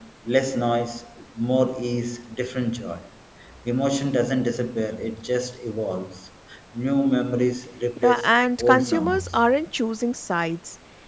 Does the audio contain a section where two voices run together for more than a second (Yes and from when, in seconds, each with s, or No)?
Yes, from 8.0 s